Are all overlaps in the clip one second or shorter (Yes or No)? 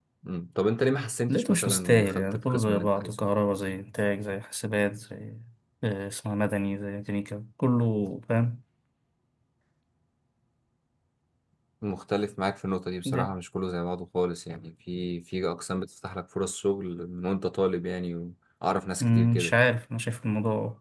No